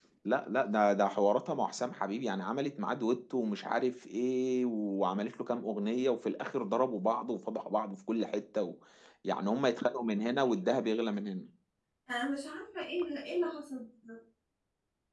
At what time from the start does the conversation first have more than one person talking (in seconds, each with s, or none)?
none